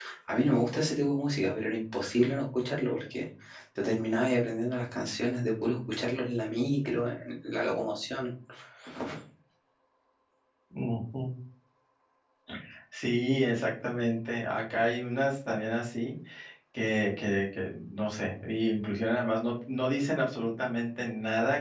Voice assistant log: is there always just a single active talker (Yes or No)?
Yes